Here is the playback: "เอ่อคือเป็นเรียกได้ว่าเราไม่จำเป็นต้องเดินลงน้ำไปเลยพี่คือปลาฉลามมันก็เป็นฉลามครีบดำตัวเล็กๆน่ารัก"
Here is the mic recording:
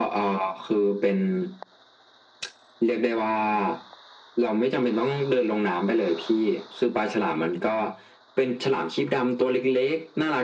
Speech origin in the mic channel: echo only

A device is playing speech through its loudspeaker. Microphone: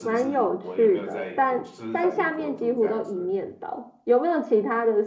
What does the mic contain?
both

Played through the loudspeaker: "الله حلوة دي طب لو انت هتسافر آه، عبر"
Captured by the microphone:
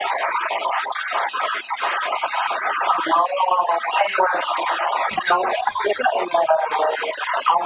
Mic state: echo only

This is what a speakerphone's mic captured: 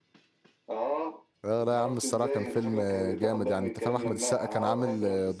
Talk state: both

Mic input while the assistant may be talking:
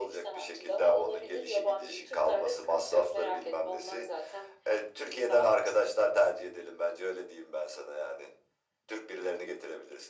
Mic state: echo only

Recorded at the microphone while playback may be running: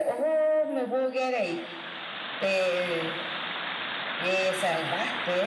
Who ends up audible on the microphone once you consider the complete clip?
echo only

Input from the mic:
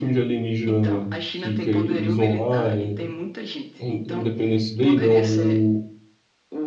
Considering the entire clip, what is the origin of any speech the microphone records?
both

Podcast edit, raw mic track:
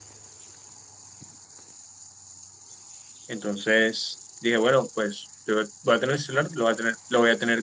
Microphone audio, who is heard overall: user only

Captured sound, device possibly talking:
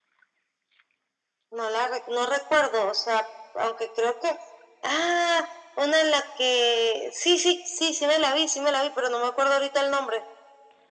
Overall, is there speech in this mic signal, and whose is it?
echo only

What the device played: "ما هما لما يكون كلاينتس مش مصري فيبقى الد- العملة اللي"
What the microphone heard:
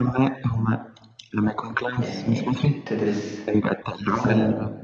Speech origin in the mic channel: both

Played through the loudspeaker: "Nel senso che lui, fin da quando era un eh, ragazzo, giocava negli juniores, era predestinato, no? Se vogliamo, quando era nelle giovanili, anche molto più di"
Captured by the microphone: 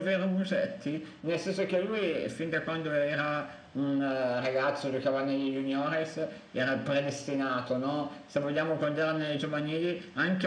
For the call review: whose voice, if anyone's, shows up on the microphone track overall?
echo only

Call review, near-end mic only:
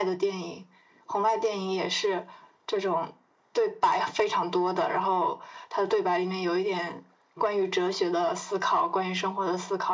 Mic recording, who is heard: echo only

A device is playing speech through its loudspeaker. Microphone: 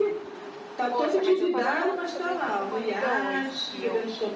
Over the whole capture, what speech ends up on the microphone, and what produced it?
both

